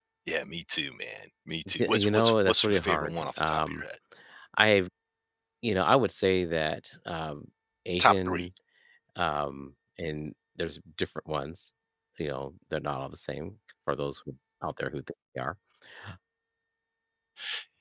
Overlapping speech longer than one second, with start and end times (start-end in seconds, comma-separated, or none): 1.8-3.8